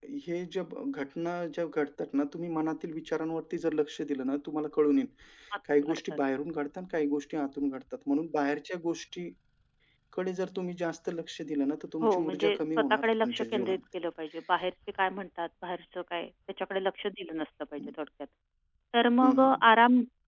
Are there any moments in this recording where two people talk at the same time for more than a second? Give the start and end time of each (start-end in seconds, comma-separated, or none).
12.0-13.8